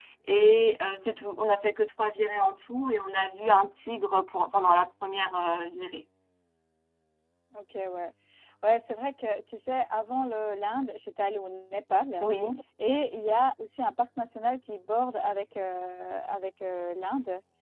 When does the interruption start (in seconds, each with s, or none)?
none